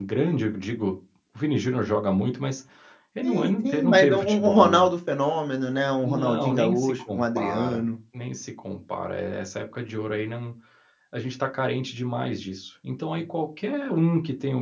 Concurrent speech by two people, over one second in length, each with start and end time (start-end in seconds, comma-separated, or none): 3.2-4.9, 6.0-7.8